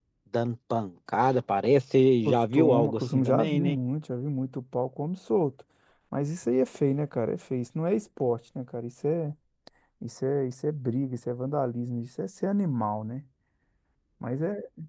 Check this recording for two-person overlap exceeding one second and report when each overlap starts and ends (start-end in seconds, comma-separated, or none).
2.2-3.8